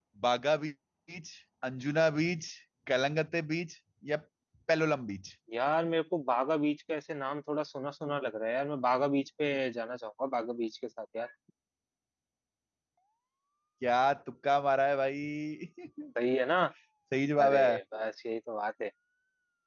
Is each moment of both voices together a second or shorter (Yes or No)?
Yes